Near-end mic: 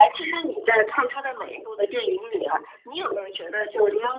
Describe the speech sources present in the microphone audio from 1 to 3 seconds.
echo only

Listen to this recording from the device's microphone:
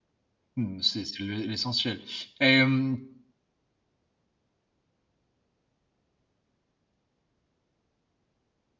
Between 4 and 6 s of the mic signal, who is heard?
neither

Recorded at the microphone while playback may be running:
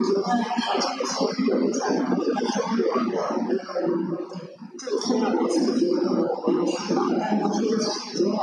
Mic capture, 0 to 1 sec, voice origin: echo only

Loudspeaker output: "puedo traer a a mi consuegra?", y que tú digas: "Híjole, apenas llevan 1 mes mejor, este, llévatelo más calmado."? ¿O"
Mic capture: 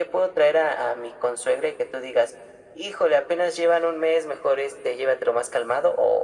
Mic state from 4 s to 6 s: echo only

